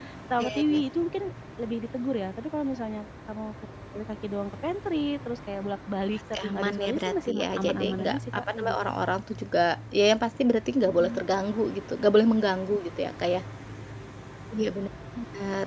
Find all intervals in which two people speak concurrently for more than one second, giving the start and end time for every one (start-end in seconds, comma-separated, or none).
6.4-8.8